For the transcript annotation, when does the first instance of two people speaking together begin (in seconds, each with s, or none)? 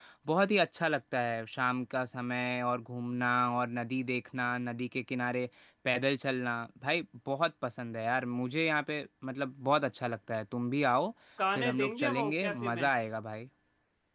11.6 s